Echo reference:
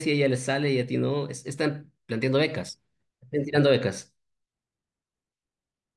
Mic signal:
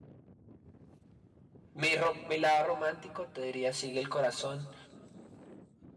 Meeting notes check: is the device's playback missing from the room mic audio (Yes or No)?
Yes